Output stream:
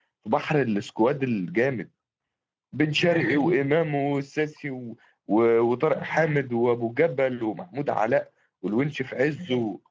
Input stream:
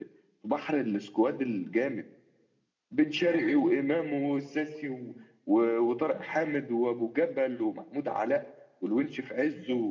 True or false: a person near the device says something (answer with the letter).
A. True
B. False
B